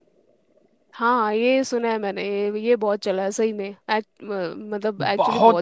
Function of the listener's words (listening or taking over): taking over